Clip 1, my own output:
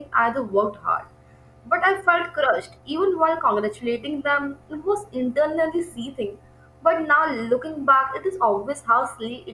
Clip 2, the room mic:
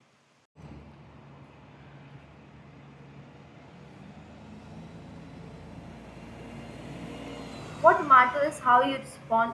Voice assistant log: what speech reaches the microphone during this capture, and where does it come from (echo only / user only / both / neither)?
user only